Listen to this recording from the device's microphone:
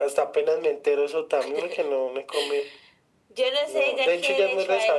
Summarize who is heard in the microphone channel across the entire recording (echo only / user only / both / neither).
echo only